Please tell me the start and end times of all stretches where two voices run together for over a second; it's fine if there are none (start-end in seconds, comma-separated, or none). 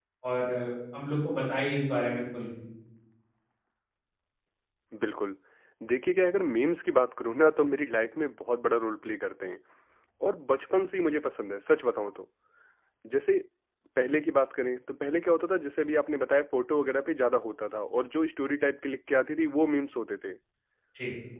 none